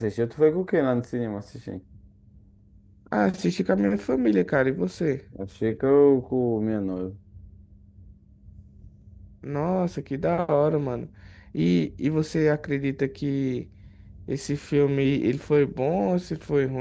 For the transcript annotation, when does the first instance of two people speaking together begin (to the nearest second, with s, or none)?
none